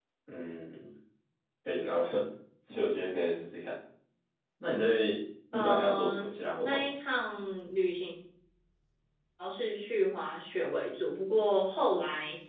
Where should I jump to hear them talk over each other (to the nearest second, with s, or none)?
6 s